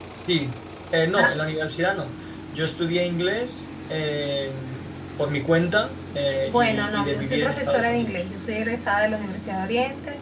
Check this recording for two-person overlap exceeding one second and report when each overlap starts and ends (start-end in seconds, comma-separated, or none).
6.5-8.2